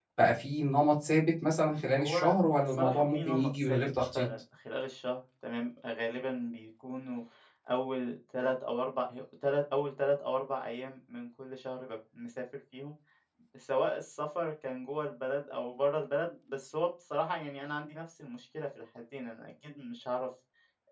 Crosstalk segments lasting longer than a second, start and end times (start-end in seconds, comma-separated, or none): 1.9-4.3